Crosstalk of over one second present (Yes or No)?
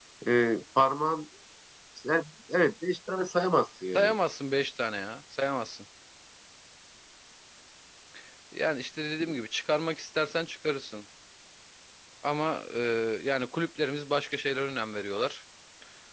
No